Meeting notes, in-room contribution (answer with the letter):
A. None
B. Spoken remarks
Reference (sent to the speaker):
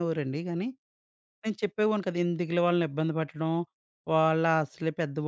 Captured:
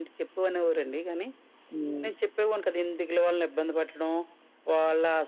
B